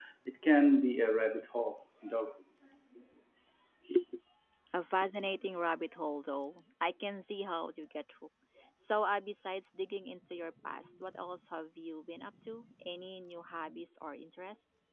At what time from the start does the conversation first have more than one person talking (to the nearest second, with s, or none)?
none